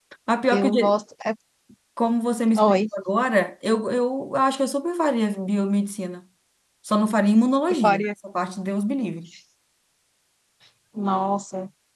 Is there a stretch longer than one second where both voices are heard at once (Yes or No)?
No